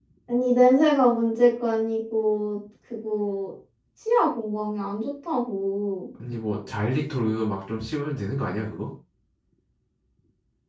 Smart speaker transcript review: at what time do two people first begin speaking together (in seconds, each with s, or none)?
none